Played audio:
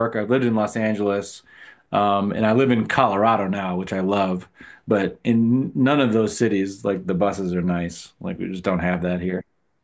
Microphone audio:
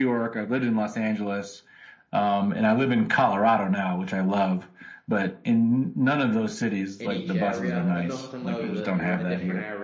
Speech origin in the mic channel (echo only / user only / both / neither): both